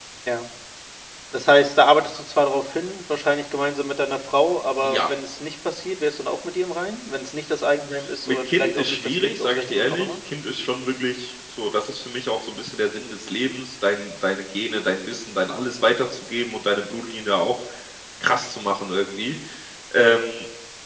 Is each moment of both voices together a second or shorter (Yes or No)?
No